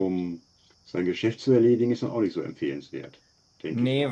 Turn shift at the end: Yes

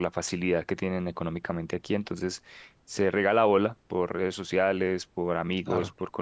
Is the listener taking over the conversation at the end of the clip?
No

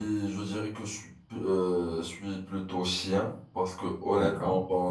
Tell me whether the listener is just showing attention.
Yes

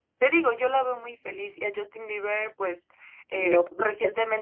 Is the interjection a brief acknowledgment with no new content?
Yes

